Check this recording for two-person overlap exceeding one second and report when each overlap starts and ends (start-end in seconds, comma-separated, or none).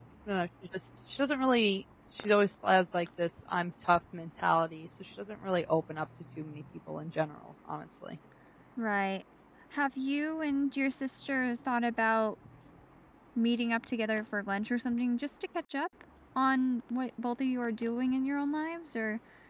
none